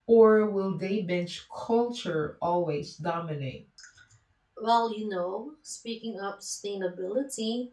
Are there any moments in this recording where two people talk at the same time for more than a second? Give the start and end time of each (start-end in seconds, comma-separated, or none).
none